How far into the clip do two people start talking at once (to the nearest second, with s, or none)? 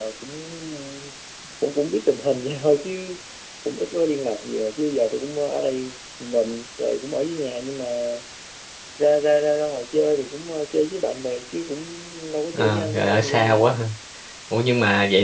13 s